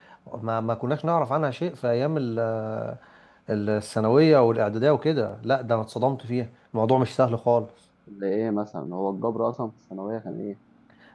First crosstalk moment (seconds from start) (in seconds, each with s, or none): none